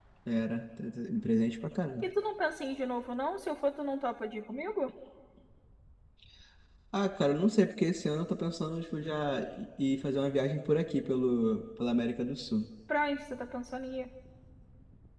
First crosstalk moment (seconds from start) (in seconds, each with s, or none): none